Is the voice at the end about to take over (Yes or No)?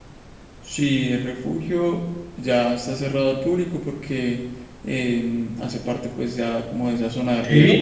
No